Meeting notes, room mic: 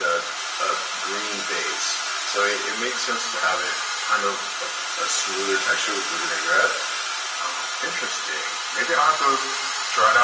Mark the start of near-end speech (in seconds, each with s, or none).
none